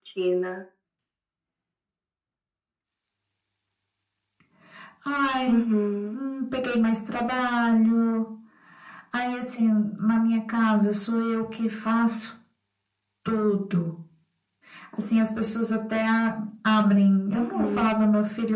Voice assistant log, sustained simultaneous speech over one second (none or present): none